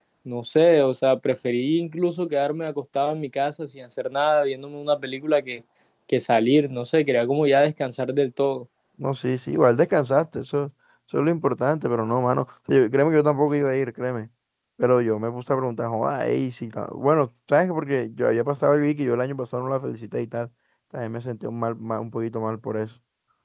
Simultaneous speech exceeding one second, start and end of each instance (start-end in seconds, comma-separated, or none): none